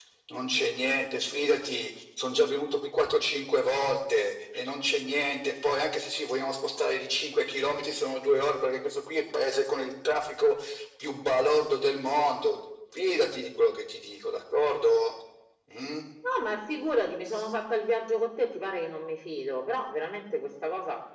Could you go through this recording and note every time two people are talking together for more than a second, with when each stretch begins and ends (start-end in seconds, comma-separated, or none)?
none